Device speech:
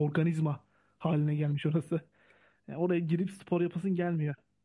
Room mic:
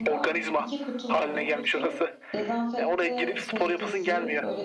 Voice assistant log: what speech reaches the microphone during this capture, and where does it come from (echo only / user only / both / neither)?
both